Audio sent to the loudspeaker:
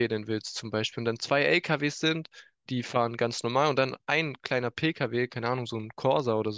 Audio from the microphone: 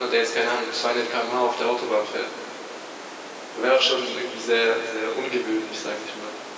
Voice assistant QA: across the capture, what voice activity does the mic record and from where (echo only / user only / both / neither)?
user only